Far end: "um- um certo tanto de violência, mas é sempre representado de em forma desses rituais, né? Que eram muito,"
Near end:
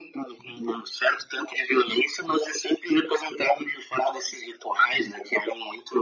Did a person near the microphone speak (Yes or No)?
No